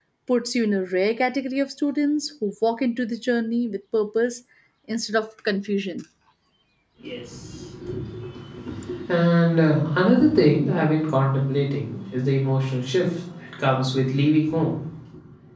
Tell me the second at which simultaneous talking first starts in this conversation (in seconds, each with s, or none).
none